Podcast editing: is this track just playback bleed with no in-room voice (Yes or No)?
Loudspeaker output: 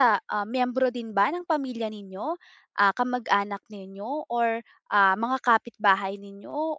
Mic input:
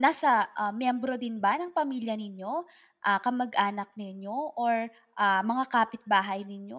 Yes